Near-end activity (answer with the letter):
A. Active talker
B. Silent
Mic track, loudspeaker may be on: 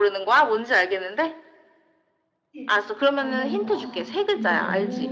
A